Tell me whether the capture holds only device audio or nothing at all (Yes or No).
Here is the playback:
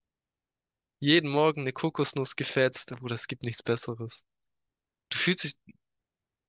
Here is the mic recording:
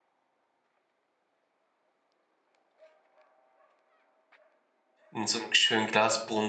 No